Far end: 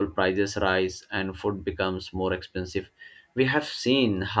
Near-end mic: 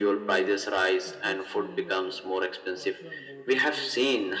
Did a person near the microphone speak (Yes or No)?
Yes